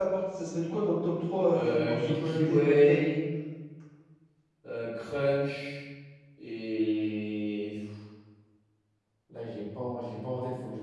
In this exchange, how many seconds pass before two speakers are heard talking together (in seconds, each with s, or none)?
1.5 s